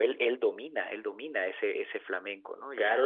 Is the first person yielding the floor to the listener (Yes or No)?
Yes